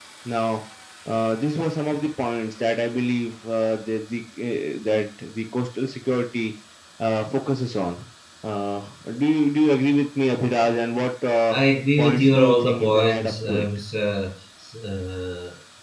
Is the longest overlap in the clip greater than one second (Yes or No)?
Yes